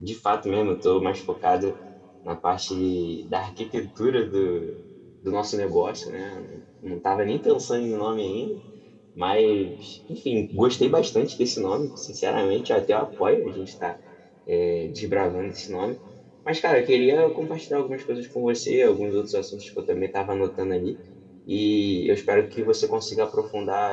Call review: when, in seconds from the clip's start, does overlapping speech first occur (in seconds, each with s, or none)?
none